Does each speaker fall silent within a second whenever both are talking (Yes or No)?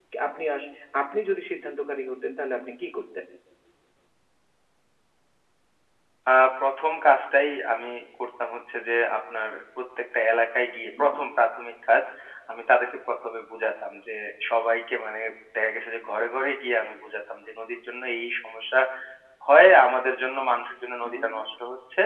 Yes